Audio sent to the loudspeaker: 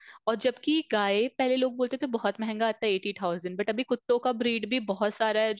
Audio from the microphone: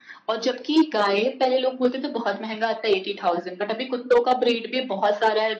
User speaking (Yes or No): No